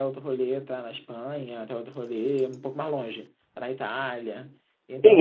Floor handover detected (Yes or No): Yes